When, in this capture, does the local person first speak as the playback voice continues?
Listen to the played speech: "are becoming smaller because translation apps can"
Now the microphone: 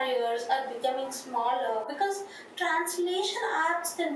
none

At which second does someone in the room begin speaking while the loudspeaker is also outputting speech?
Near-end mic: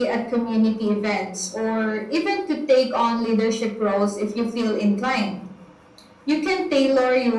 none

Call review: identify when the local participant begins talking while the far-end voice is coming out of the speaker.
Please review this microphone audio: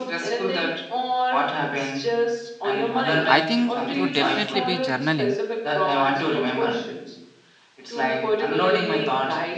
3 s

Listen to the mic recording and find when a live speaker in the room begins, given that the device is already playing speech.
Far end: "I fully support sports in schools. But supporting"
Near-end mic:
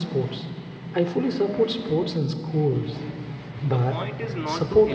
4 s

